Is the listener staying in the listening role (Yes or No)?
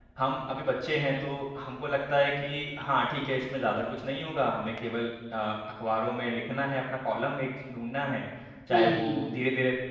Yes